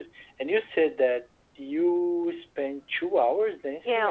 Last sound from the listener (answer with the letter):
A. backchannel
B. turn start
B